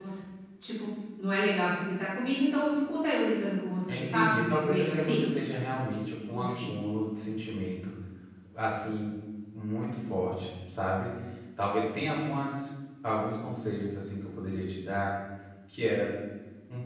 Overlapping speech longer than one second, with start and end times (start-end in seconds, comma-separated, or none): 3.9-5.3